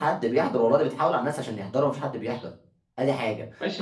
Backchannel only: No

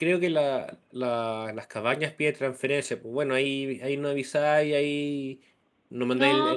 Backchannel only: Yes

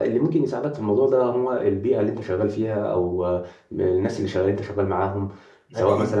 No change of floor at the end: Yes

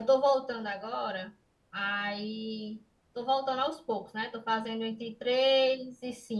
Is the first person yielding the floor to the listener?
No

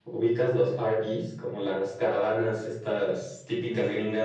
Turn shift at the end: Yes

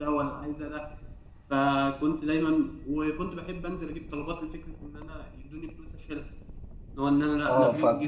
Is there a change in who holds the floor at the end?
Yes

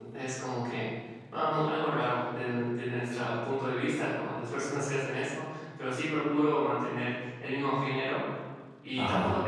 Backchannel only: Yes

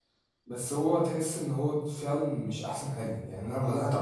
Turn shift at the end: No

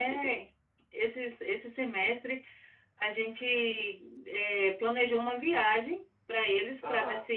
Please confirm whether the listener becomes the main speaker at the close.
No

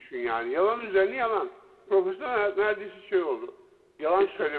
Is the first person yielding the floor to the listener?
No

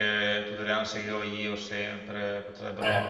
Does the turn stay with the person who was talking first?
No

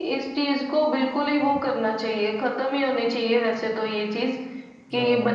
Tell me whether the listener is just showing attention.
Yes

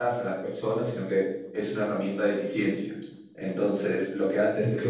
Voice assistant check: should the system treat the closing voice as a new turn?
No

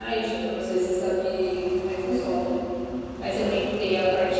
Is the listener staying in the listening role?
Yes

